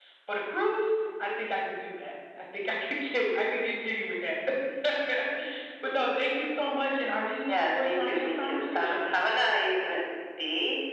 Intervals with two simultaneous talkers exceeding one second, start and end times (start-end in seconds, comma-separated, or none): 7.5-9.1